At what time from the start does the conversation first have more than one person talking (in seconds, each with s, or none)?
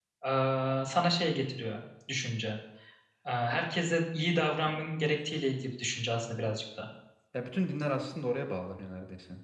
none